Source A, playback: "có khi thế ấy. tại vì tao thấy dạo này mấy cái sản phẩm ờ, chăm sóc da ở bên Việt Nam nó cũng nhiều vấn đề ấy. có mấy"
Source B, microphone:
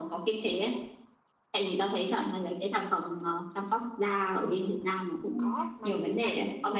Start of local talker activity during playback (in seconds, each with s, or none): 5.4 s